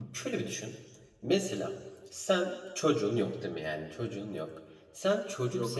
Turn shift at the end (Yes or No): No